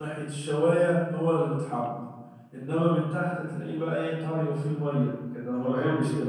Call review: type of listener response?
taking over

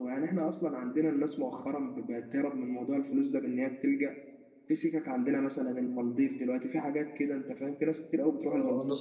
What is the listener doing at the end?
taking over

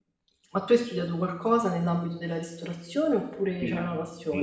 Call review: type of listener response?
taking over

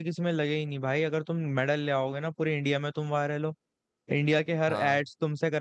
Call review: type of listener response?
listening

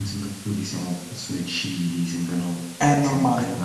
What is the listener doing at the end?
taking over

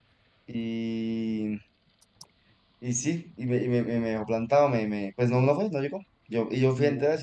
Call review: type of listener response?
listening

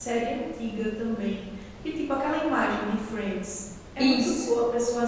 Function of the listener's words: listening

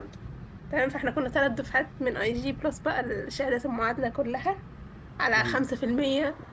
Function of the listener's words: listening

